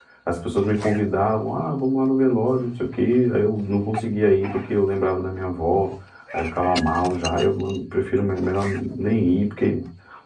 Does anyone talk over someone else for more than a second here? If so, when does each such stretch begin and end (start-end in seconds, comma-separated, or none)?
none